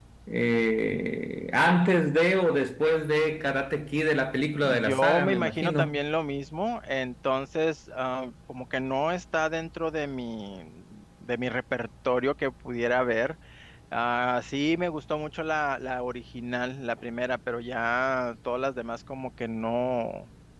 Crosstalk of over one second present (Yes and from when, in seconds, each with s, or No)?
Yes, from 4.6 s